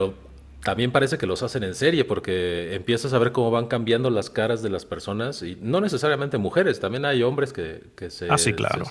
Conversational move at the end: listening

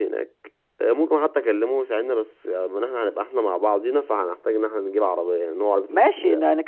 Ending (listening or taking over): taking over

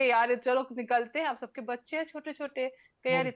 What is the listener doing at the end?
listening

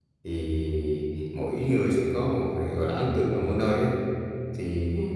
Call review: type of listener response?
listening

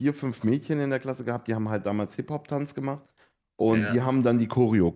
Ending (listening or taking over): listening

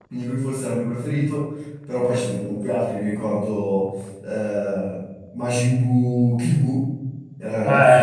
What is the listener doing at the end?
taking over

